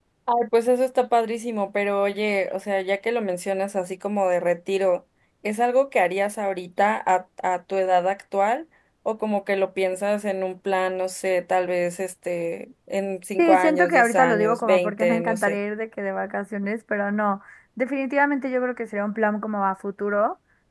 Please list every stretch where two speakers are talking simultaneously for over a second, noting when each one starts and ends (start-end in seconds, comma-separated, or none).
13.4-15.6